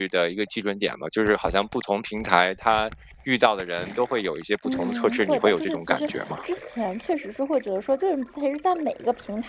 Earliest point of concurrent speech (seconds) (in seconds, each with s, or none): 4.6 s